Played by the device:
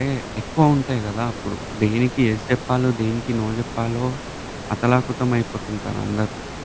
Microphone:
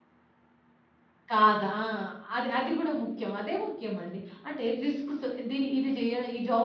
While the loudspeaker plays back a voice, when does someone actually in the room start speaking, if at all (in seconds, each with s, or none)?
1.3 s